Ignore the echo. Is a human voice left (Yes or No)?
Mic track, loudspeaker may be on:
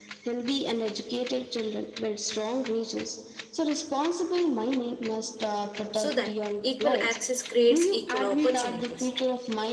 Yes